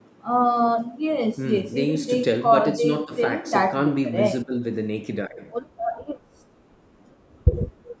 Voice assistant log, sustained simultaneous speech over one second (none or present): present